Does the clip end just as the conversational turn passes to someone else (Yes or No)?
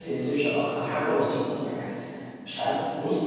Yes